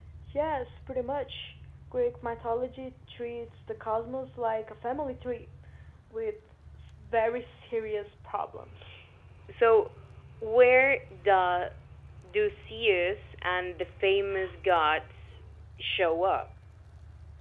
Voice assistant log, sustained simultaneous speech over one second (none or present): none